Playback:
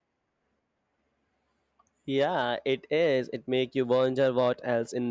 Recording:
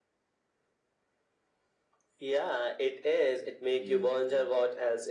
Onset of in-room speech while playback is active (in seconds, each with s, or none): 3.7 s